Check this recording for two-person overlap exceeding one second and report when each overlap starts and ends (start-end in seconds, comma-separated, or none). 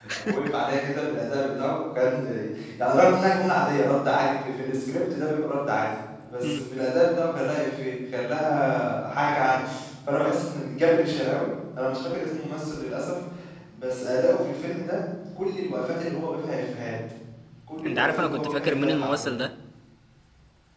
17.8-19.3